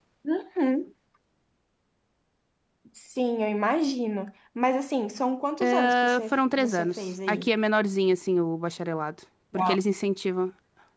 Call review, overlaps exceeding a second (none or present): present